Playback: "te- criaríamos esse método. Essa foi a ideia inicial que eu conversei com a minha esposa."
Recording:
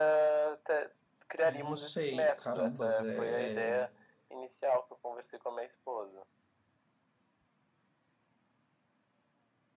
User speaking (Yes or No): Yes